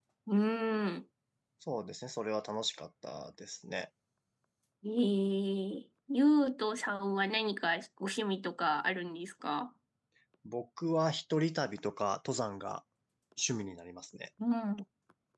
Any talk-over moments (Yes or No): No